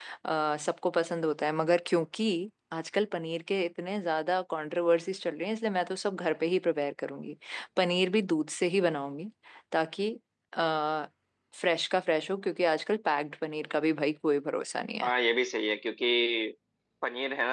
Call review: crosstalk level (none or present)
none